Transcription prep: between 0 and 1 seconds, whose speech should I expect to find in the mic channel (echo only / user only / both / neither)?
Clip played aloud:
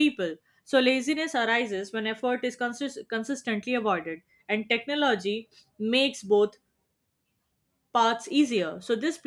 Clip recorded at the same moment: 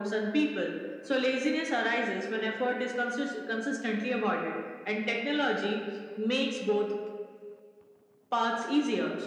echo only